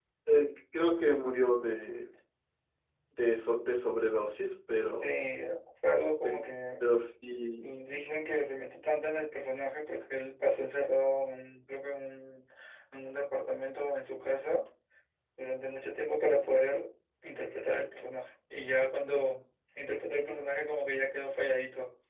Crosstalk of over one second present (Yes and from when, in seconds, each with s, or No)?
No